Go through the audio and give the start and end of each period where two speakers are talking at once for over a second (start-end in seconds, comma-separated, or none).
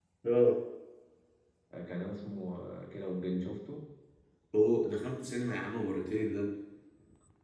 none